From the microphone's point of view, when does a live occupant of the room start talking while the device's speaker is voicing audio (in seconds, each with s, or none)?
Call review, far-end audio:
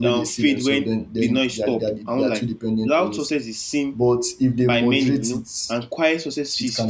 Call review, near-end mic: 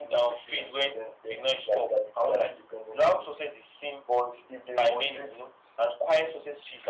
none